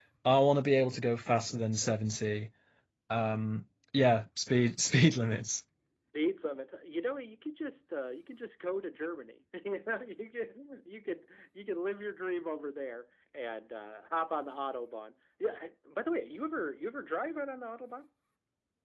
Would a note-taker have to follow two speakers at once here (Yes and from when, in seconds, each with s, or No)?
No